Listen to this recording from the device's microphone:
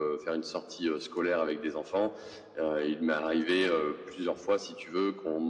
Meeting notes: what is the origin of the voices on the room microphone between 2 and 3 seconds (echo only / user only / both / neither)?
echo only